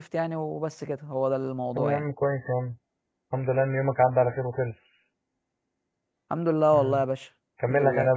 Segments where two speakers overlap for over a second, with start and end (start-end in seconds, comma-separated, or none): none